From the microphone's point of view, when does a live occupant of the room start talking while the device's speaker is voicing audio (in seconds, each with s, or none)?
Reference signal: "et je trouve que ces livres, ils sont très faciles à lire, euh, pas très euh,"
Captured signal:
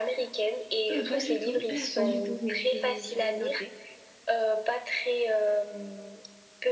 0.9 s